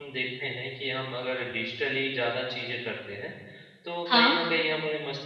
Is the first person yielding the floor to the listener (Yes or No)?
No